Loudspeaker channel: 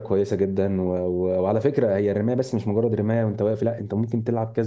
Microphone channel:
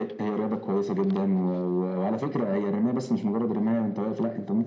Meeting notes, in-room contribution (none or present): none